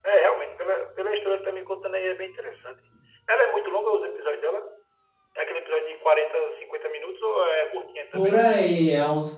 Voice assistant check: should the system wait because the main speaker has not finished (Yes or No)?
No